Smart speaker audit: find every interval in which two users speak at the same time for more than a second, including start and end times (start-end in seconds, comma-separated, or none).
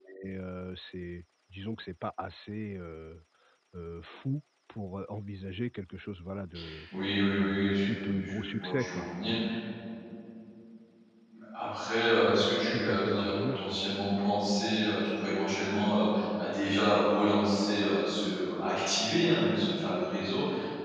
7.3-9.1, 12.1-13.8